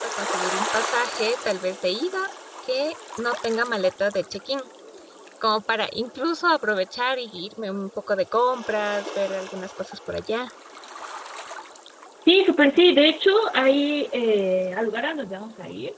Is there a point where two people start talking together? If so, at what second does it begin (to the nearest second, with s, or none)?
none